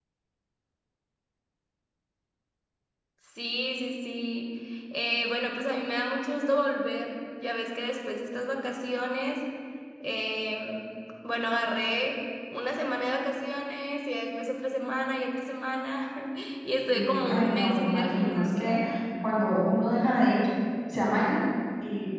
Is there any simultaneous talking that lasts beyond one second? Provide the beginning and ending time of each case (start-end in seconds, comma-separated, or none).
16.9-18.8